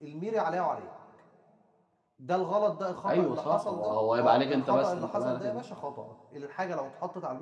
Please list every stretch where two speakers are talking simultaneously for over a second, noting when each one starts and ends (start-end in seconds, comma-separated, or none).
3.0-5.6